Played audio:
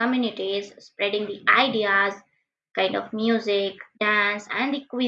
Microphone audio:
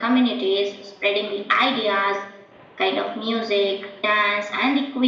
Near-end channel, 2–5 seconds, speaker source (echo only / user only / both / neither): echo only